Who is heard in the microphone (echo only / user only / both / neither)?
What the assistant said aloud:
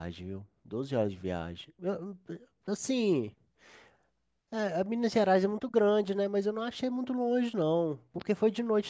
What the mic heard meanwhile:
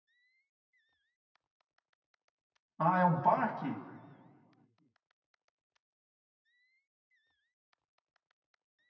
user only